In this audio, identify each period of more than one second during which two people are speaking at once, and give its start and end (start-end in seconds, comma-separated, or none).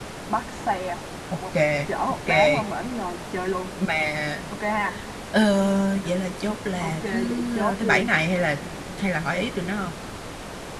6.8-8.1